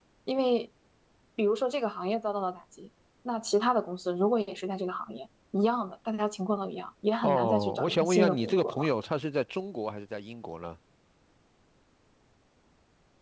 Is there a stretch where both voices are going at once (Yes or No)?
Yes